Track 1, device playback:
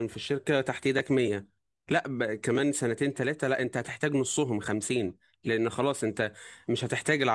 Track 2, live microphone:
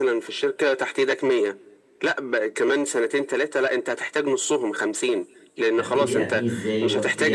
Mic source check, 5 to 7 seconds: both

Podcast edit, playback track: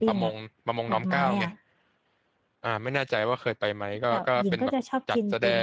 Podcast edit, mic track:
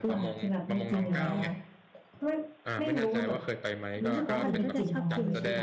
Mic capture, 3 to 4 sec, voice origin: both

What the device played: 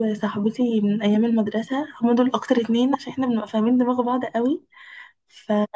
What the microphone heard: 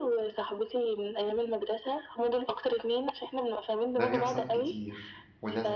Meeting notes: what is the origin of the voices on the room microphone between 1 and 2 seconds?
echo only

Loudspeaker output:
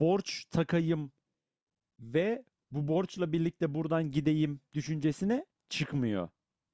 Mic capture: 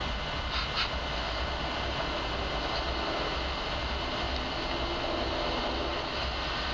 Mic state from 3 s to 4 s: neither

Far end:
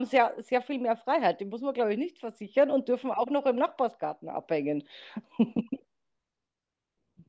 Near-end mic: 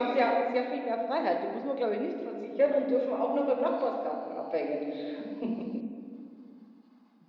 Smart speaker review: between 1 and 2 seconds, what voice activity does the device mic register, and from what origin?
echo only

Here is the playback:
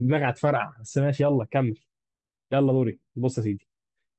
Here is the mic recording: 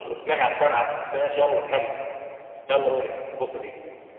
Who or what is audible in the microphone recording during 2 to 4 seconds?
echo only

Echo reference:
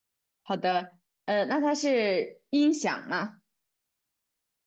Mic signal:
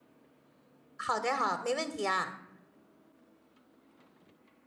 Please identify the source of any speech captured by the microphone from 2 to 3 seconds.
user only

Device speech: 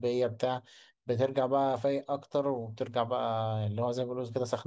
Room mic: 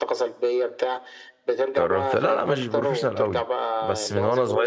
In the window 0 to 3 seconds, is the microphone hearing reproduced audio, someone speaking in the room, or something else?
both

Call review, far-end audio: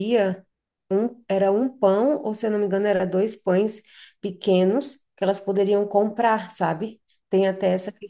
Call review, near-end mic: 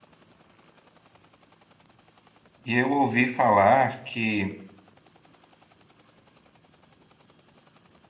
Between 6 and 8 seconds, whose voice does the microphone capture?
neither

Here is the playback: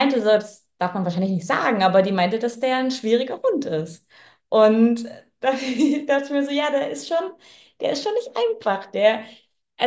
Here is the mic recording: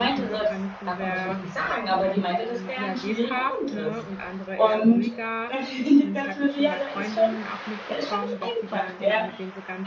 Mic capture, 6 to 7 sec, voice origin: both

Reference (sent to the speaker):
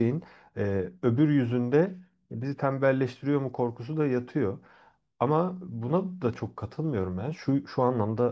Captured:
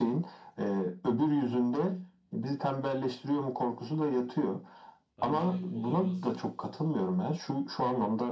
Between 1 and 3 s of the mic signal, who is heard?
echo only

